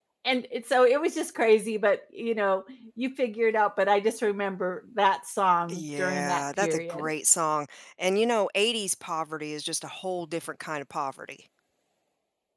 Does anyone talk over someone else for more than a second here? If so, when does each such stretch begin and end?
5.7-7.1

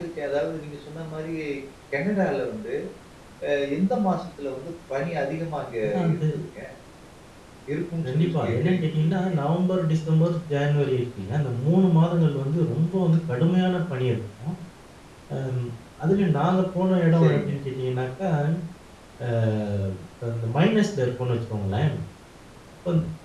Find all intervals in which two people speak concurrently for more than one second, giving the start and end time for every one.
8.1-9.3

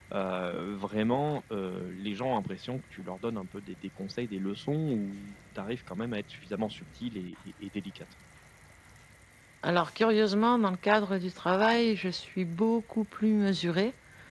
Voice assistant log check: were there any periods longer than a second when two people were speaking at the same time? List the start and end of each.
none

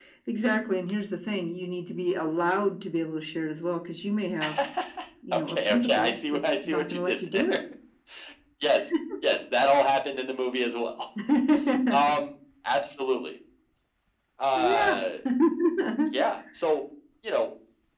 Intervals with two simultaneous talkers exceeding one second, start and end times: 5.3-7.6

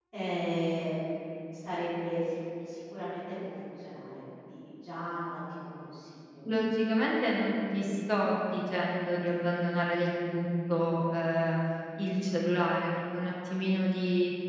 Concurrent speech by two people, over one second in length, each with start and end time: none

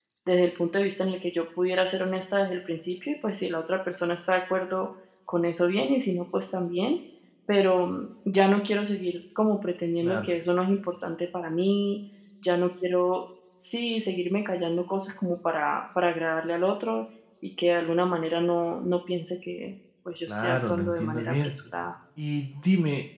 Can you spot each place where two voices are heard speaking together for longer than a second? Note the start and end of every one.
20.3-21.5

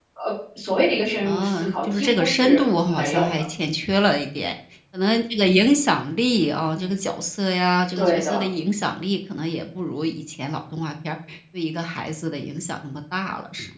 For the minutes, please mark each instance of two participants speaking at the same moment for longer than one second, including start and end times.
1.2-3.9

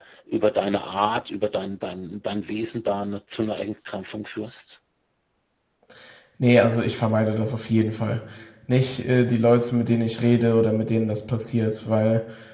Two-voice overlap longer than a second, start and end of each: none

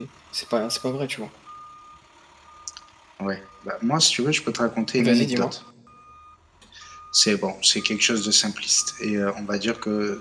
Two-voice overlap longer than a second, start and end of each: none

